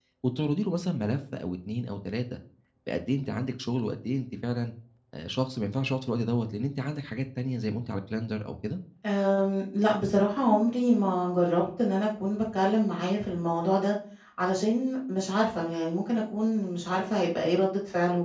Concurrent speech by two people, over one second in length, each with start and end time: none

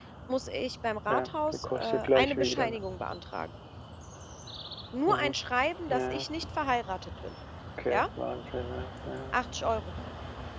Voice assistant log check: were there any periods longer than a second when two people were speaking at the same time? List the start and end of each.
1.1-2.8

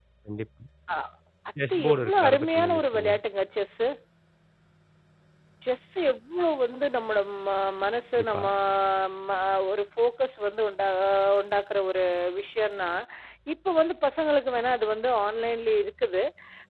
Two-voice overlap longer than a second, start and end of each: 1.7-3.1

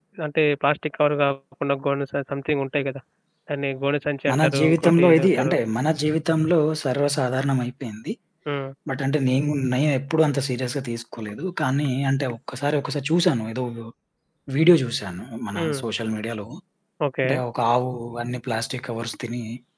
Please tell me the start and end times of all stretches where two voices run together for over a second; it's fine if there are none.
4.3-5.5

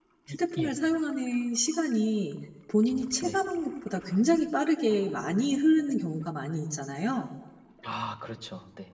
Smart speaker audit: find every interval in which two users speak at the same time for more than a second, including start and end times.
none

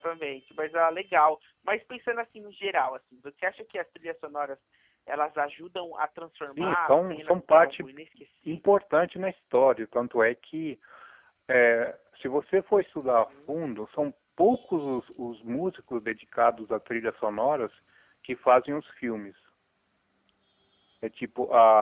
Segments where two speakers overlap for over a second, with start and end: 6.6-7.9

